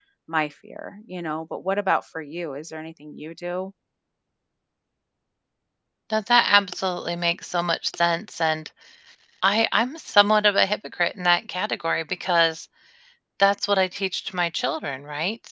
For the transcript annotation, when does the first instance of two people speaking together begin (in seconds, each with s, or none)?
none